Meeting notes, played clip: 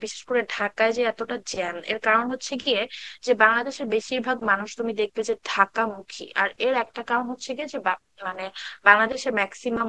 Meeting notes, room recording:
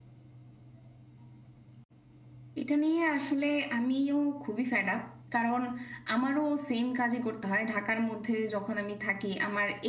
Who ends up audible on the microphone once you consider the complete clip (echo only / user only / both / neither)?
user only